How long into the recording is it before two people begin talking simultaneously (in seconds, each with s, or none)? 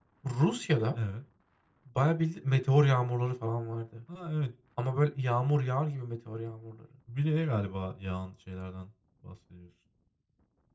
none